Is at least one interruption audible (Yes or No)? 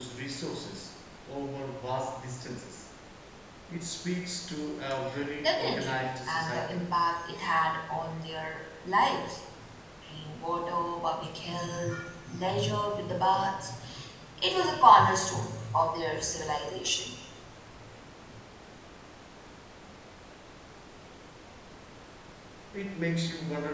Yes